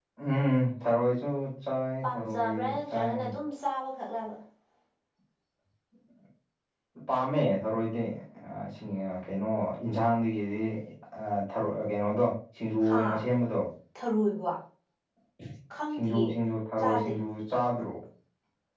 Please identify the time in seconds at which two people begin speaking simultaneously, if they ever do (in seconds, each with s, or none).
2.0 s